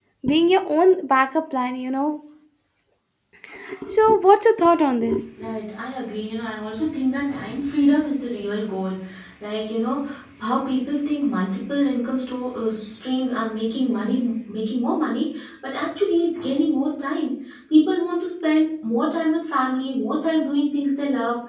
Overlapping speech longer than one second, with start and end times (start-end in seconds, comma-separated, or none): none